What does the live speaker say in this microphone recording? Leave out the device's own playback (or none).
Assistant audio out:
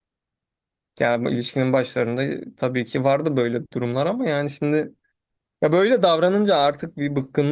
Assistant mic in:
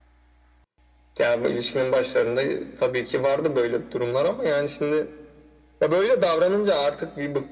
none